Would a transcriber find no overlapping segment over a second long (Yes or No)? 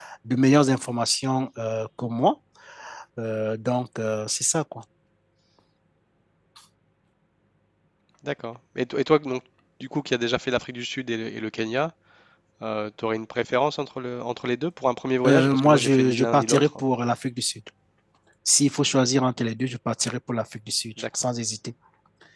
No